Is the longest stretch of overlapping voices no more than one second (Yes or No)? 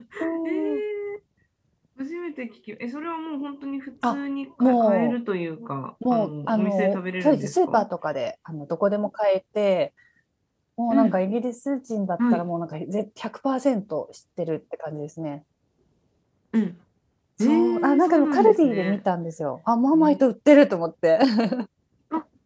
No